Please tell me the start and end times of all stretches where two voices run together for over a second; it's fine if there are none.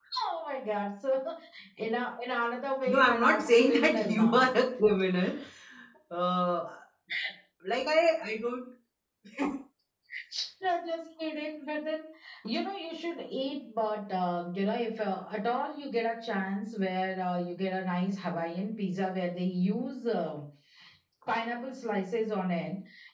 2.8-4.4

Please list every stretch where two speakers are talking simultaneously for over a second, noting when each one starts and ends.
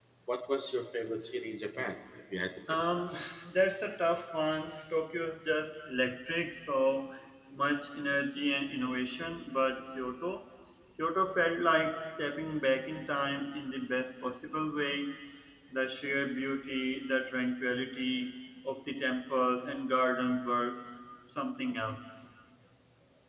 none

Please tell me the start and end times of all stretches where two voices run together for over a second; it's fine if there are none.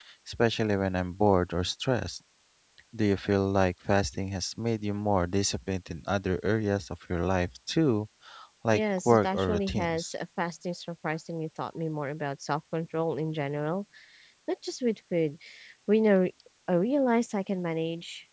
8.7-10.1

